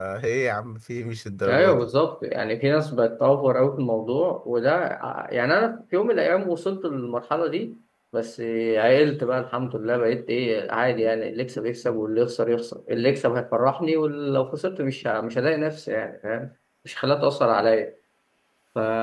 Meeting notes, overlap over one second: none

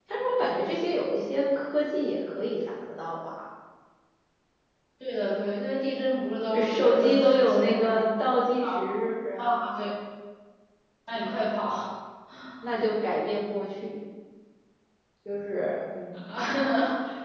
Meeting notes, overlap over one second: present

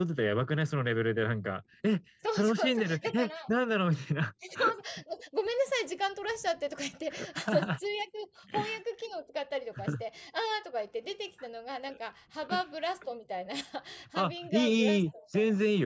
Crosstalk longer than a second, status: present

